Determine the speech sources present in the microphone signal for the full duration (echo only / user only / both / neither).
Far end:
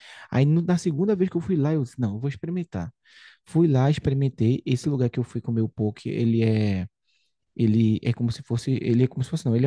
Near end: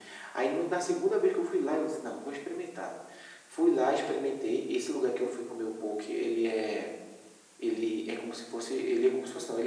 echo only